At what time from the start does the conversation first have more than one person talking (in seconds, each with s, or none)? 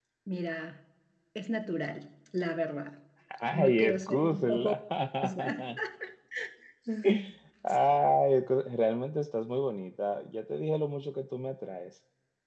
3.5 s